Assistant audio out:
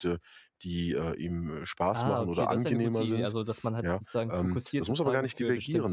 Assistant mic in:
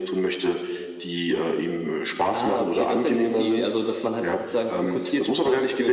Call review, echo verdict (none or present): present